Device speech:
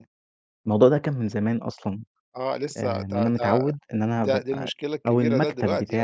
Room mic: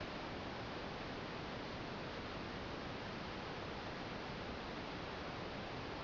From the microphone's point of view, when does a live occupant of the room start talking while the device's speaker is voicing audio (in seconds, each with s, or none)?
none